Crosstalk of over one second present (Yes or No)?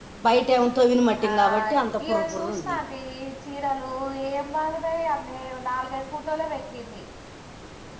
Yes